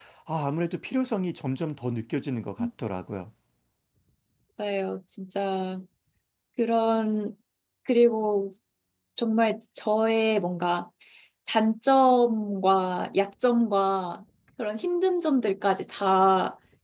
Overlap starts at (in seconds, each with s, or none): none